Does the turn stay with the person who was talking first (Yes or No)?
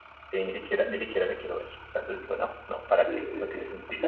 No